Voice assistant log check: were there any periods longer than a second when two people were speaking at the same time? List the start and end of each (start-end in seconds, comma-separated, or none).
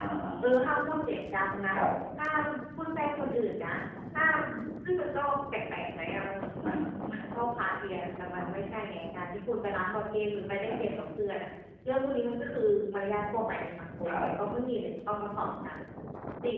none